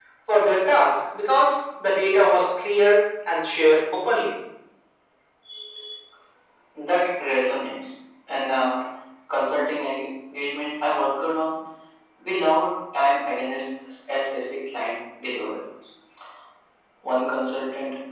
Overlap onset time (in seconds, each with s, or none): none